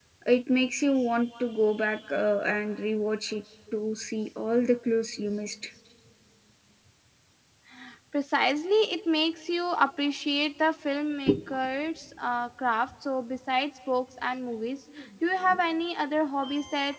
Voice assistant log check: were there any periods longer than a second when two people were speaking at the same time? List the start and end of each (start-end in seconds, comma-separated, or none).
none